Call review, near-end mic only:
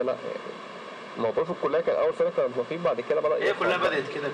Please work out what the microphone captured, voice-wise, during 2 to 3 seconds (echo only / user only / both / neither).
echo only